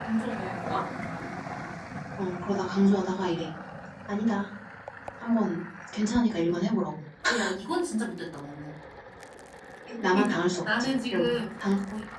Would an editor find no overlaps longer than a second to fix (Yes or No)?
No